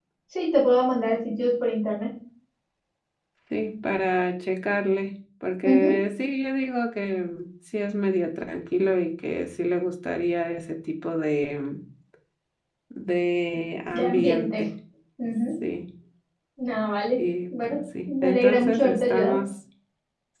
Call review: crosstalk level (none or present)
present